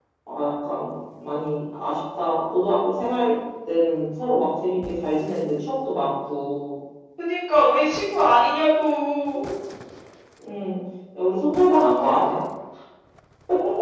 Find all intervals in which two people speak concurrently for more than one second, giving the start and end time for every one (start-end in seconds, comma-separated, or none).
none